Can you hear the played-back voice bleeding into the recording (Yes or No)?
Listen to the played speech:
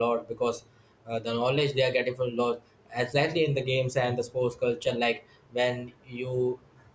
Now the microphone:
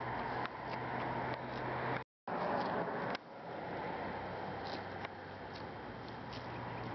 No